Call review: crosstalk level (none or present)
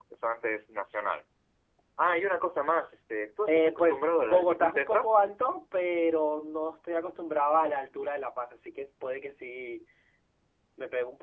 present